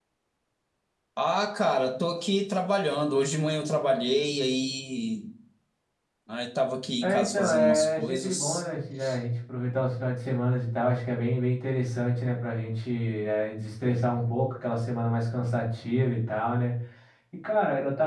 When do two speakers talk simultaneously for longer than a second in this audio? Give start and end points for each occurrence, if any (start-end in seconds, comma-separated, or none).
7.0-8.6